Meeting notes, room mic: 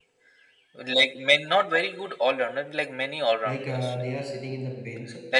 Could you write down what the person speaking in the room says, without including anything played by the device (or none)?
Like uh, they are sitting in the bench.